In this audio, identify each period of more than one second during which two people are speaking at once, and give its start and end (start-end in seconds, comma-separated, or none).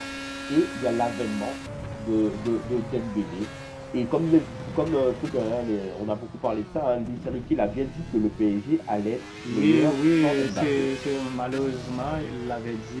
9.5-10.9